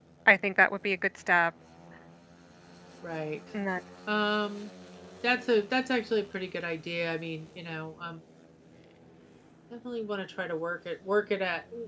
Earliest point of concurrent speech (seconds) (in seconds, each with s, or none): none